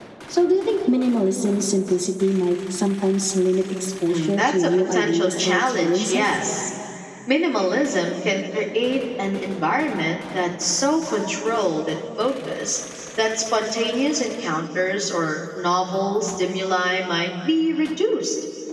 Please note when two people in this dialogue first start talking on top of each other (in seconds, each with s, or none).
4.1 s